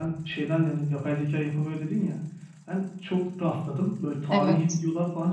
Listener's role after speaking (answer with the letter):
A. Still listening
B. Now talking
A